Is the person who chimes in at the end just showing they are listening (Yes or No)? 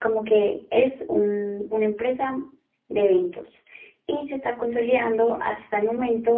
Yes